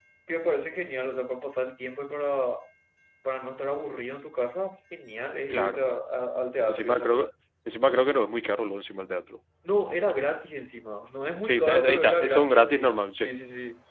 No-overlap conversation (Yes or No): No